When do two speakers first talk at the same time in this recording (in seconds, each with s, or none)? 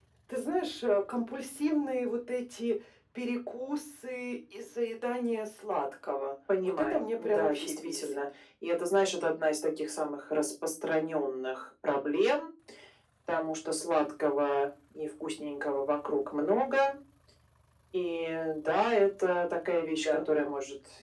6.6 s